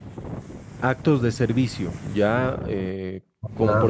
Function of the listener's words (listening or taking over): taking over